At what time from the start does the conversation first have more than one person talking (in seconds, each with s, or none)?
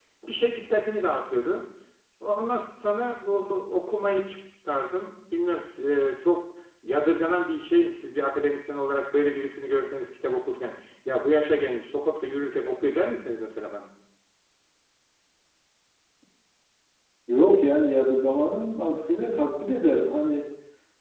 none